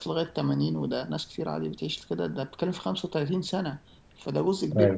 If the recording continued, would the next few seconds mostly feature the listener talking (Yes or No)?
No